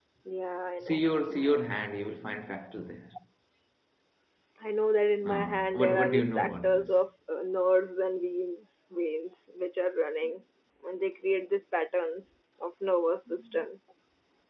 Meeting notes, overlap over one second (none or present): present